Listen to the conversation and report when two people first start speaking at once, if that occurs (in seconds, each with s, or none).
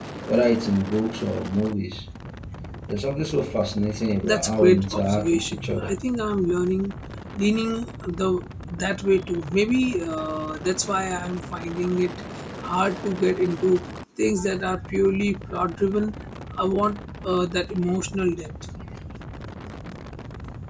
4.2 s